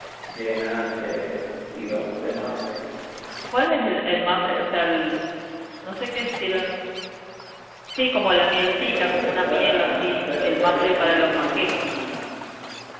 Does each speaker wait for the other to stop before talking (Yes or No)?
No